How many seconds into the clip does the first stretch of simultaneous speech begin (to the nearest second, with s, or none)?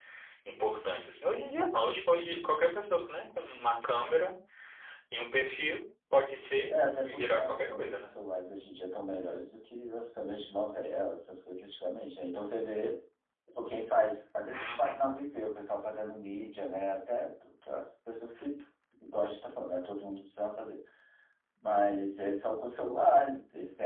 7 s